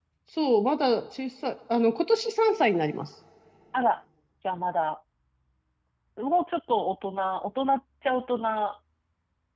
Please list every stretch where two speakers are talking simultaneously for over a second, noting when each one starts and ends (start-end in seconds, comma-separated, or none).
none